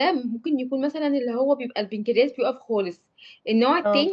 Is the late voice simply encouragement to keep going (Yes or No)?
Yes